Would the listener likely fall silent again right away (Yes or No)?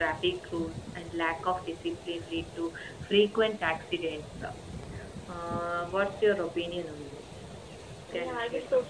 No